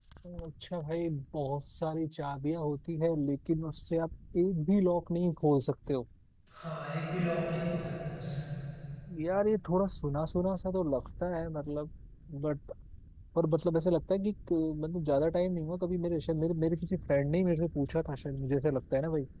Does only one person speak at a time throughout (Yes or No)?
Yes